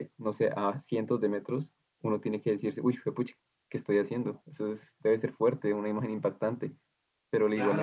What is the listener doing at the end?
taking over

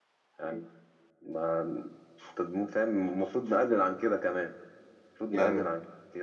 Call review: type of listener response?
listening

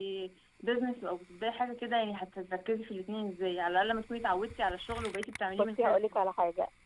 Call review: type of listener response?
taking over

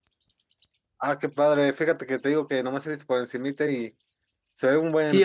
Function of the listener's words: taking over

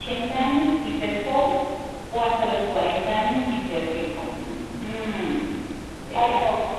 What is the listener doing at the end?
taking over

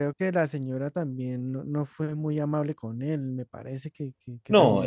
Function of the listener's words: taking over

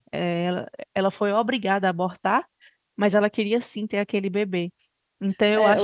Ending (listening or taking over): taking over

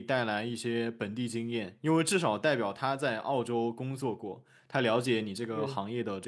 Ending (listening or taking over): listening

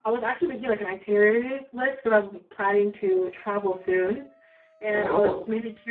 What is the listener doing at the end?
listening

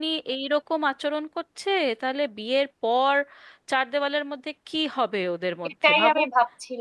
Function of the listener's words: taking over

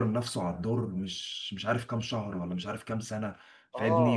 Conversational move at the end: listening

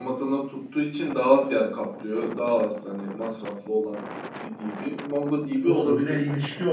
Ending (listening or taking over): taking over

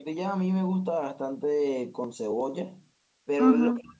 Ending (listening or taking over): listening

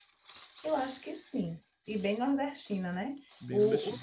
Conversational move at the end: listening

